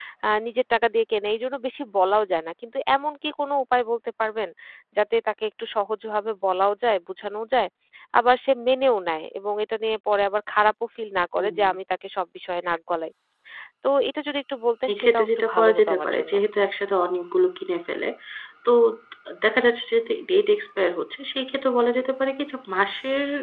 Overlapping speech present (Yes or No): Yes